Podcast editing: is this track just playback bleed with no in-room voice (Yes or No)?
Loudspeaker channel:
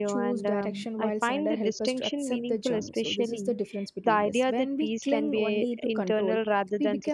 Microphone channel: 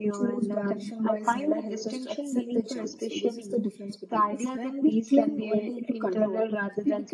Yes